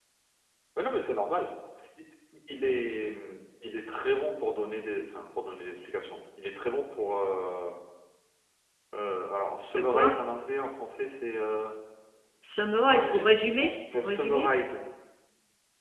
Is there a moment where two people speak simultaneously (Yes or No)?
Yes